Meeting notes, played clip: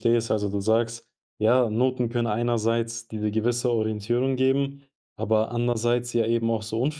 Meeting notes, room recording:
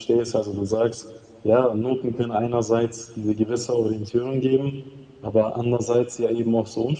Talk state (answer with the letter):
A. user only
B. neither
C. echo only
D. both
C